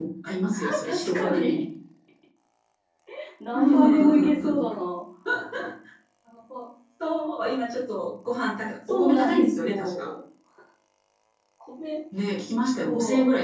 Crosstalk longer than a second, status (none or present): present